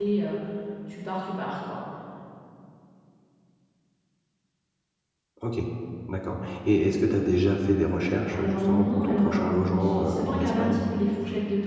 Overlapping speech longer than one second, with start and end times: 8.3-10.8

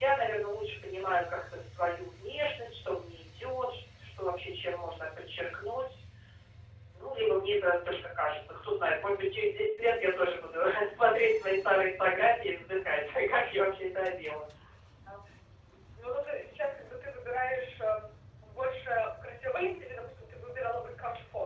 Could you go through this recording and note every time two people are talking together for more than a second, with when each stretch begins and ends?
none

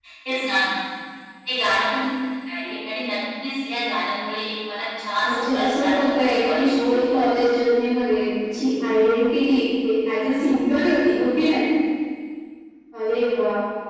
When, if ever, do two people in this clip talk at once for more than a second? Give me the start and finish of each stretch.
5.2-7.2

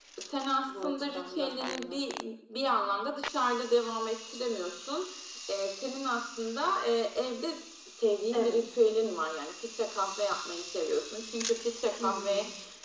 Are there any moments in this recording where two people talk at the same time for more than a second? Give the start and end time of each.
0.7-2.0

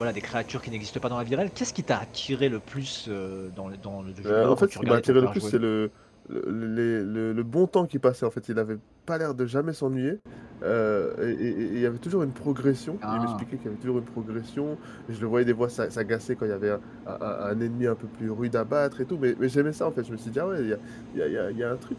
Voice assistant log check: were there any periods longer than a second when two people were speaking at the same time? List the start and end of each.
4.2-5.5

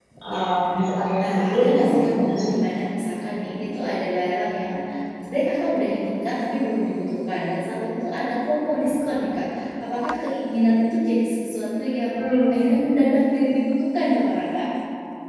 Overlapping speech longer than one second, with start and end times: 1.2-2.6

